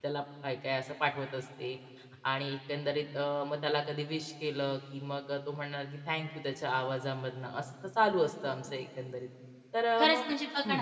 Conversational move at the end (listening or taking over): taking over